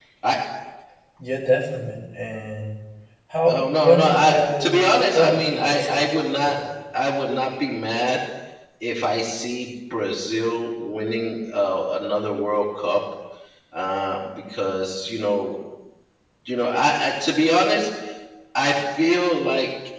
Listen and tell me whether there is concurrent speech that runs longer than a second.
Yes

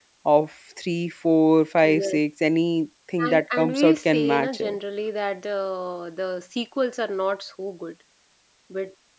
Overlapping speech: Yes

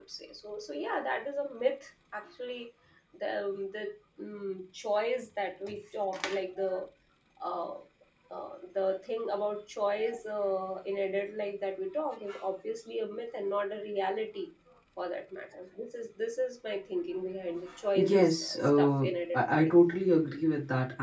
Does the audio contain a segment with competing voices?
Yes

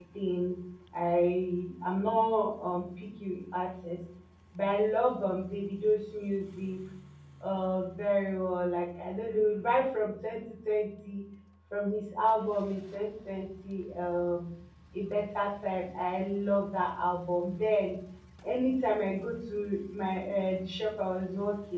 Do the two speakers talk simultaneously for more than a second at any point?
No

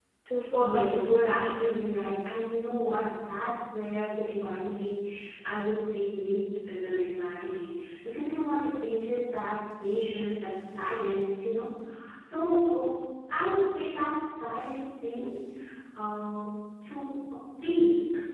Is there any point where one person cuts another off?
Yes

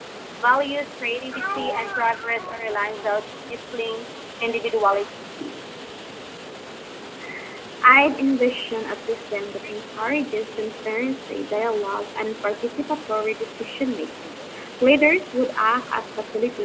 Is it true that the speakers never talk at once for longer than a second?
Yes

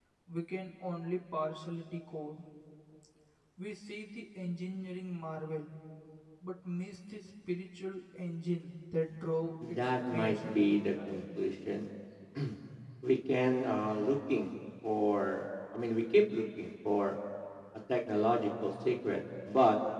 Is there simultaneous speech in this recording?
Yes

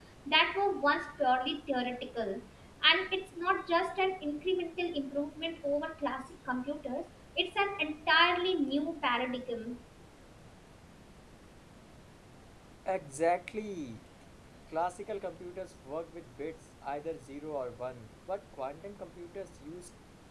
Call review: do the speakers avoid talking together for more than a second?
Yes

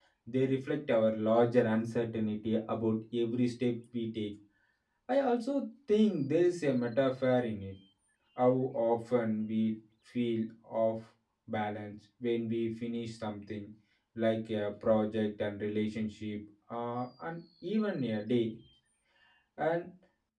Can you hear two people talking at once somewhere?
No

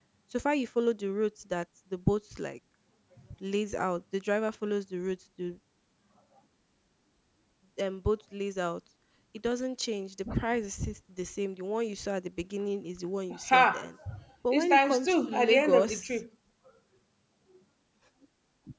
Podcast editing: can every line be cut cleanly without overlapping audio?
No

